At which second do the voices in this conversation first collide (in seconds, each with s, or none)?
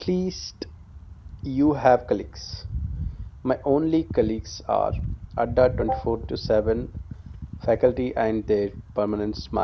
none